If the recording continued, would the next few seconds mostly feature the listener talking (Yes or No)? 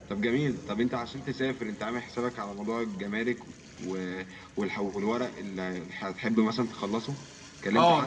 Yes